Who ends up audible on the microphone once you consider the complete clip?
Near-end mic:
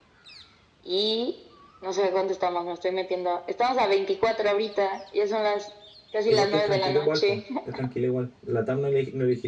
both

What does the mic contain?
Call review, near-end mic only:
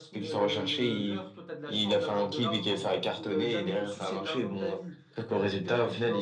echo only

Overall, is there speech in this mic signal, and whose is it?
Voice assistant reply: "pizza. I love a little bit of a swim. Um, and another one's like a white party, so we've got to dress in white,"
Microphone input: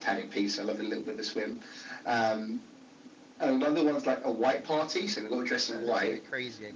both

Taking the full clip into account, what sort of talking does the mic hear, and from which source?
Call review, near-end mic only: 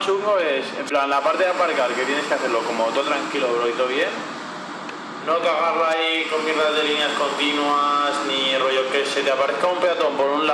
echo only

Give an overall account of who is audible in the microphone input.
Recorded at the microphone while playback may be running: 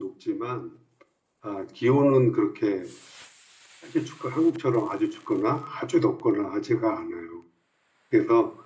user only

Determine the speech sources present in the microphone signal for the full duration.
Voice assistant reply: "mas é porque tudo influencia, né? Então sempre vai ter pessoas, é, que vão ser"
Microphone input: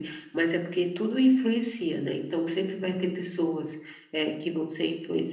echo only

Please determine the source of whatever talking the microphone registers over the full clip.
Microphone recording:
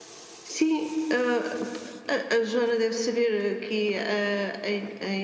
user only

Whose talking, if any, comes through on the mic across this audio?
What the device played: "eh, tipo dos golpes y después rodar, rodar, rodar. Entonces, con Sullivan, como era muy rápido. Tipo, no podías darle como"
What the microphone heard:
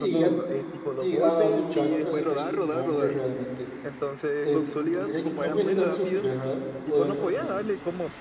both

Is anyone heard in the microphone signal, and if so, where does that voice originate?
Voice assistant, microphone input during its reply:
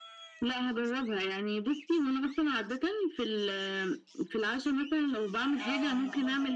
both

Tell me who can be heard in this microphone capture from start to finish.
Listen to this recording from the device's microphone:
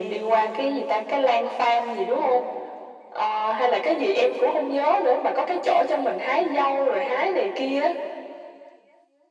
echo only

